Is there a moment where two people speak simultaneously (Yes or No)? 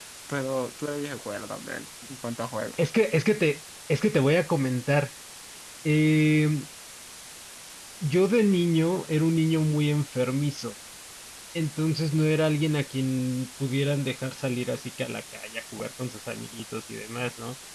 No